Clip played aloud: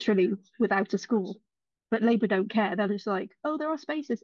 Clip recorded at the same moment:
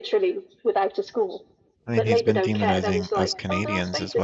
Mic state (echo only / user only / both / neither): both